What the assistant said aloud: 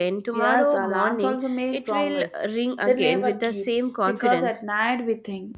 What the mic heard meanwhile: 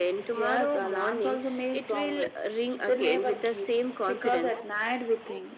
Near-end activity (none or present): none